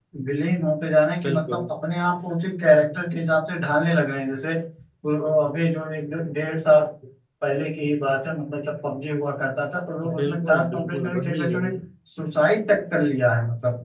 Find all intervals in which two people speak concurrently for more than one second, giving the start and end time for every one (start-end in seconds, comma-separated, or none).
10.2-11.7